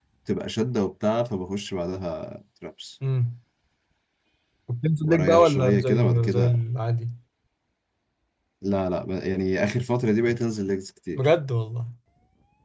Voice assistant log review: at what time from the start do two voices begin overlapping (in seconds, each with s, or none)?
5.0 s